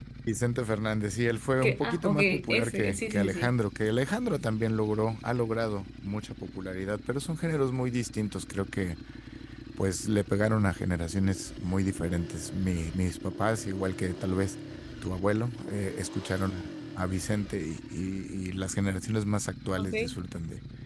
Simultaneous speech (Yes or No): Yes